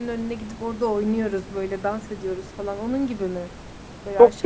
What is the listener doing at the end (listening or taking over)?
taking over